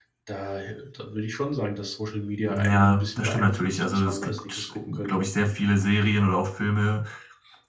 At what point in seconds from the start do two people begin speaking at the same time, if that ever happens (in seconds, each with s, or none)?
2.5 s